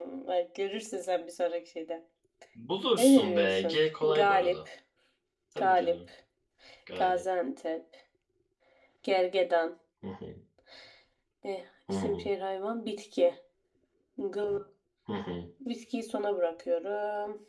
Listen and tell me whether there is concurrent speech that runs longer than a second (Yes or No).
Yes